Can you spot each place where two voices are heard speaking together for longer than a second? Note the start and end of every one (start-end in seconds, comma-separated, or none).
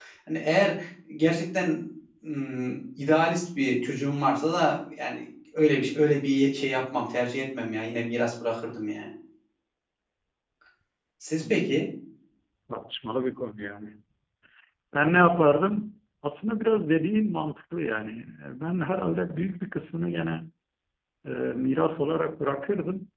none